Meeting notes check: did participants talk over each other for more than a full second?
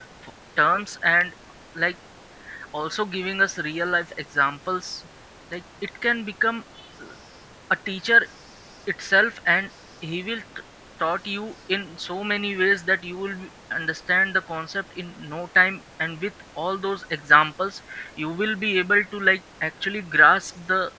No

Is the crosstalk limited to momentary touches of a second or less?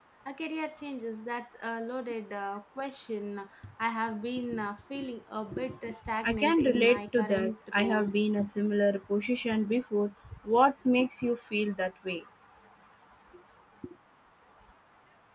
No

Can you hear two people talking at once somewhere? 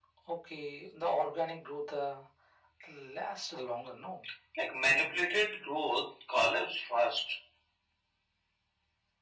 No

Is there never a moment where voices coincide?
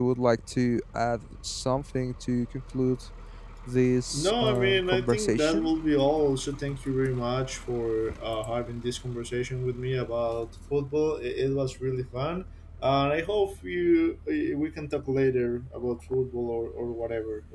No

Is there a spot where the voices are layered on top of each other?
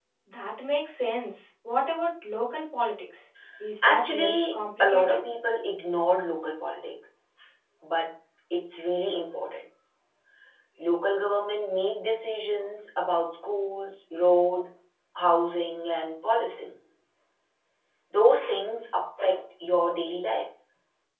Yes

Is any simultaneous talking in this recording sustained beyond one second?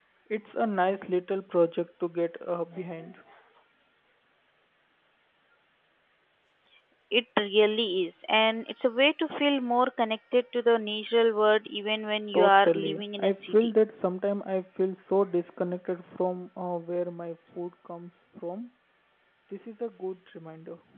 Yes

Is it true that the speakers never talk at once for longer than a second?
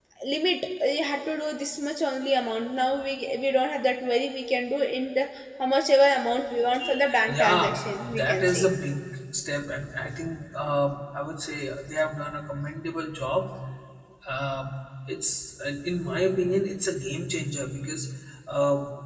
No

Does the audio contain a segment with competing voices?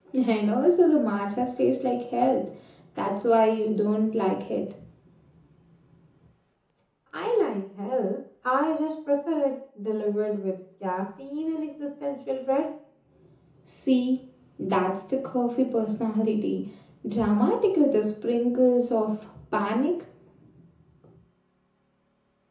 No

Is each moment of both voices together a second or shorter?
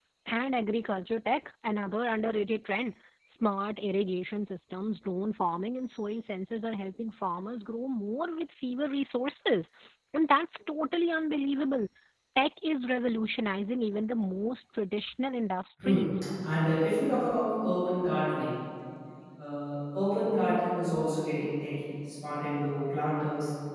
Yes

